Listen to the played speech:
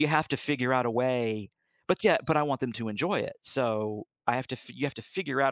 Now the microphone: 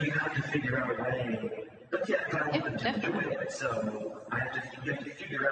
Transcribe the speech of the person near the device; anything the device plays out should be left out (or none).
yeah, definitely.